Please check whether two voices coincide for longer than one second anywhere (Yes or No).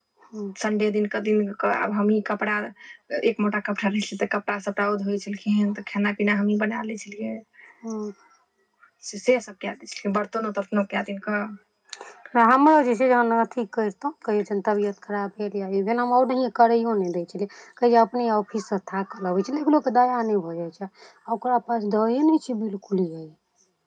No